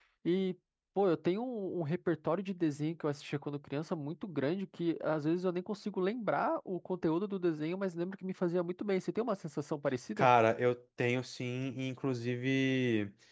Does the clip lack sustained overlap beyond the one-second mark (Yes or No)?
Yes